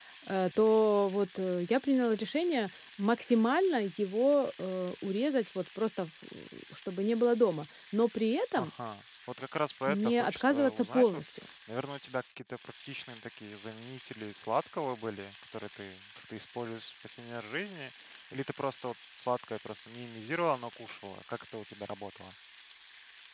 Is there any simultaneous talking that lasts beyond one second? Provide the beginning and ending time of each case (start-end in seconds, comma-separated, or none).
9.9-11.2